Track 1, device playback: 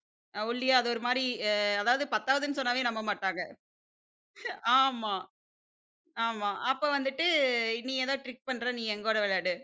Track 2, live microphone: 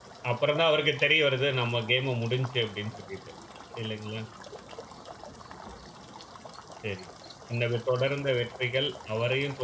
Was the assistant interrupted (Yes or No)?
Yes